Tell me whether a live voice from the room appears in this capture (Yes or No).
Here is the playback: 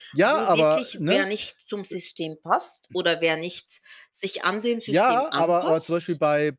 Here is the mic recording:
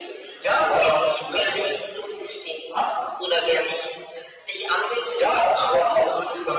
No